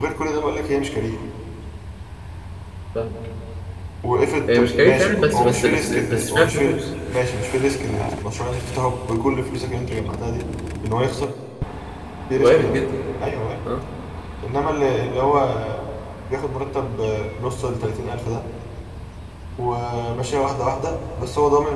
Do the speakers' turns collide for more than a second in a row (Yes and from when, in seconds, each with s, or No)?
Yes, from 4.5 s